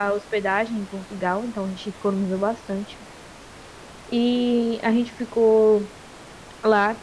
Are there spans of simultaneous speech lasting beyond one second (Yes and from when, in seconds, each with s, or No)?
No